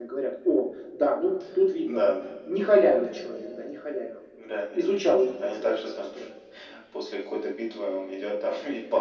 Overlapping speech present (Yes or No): Yes